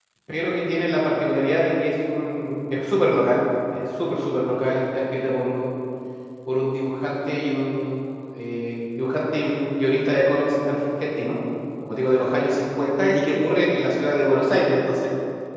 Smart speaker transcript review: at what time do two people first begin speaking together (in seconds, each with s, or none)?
none